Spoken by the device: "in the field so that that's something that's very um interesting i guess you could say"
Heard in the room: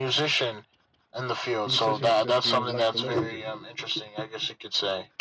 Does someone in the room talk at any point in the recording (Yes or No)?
Yes